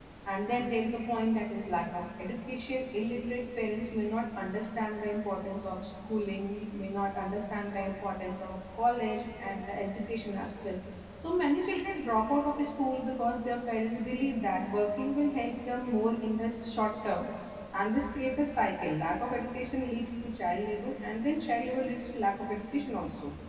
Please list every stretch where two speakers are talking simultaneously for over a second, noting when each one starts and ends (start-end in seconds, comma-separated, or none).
none